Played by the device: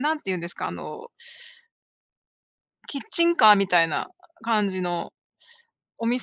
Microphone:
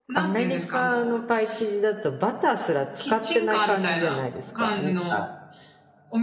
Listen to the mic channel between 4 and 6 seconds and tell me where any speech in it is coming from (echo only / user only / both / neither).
both